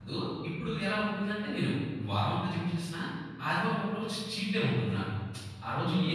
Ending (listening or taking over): listening